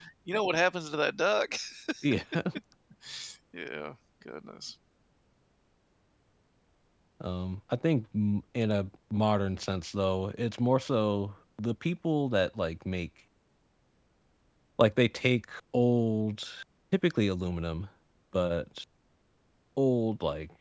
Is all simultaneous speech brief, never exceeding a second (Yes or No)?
Yes